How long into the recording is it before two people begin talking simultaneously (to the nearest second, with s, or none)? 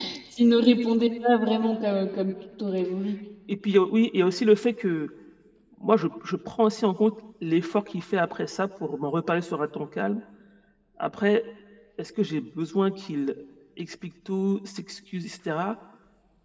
none